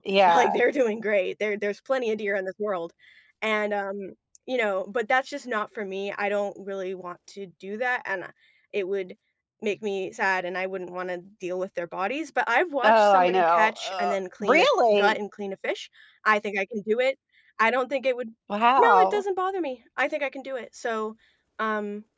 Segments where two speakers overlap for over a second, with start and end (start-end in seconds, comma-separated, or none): 12.8-15.2